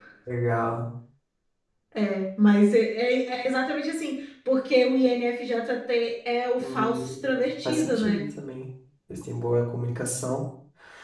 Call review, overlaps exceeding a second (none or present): present